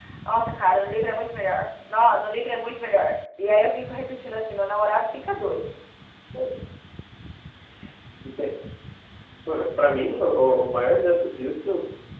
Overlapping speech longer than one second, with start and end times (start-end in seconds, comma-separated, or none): none